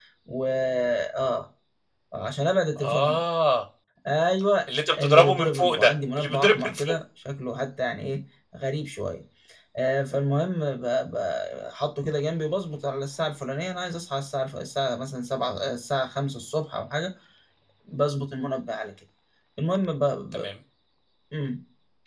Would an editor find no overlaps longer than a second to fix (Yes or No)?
No